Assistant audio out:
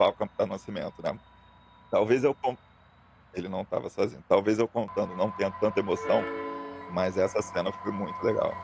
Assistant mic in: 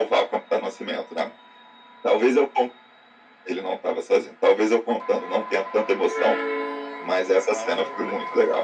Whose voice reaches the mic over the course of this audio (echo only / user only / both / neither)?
both